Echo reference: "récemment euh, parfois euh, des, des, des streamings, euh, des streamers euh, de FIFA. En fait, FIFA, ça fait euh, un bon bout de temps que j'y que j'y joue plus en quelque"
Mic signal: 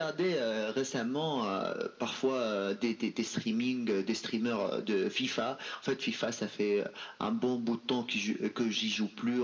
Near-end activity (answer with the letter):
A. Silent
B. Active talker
A